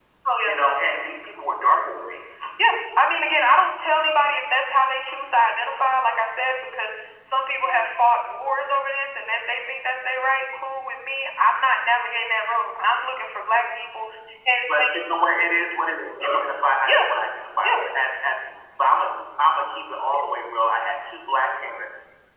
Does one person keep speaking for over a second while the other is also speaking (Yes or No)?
No